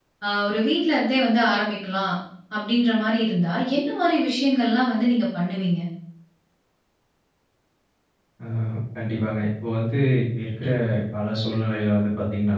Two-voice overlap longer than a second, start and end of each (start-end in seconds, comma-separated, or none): none